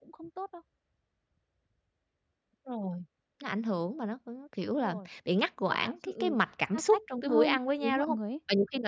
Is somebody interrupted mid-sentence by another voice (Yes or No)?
Yes